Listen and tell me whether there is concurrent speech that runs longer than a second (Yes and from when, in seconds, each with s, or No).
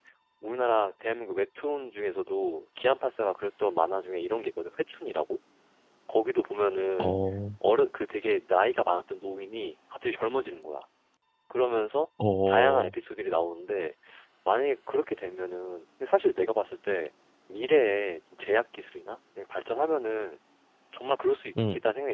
No